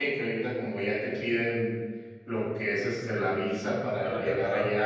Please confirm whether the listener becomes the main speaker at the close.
No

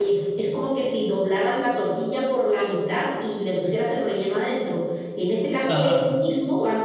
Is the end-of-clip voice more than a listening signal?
No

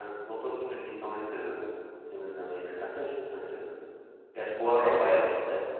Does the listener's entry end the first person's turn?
Yes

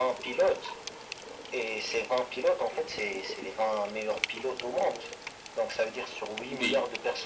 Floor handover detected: No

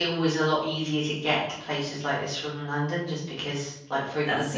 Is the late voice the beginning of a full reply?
No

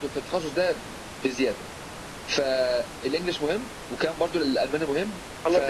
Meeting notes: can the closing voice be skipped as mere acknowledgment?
No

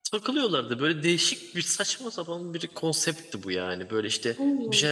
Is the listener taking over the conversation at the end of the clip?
No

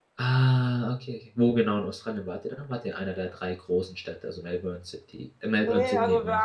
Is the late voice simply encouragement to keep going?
No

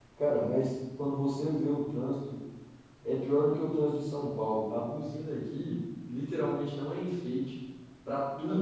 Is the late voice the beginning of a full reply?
No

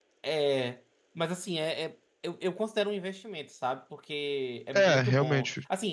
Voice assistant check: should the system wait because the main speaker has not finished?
Yes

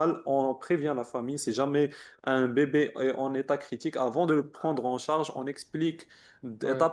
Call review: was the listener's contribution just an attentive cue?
Yes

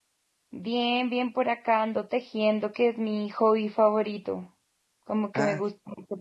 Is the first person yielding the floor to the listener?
No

